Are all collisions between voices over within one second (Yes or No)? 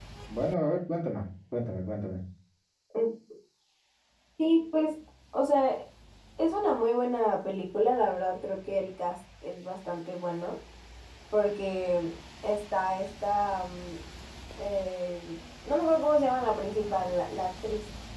Yes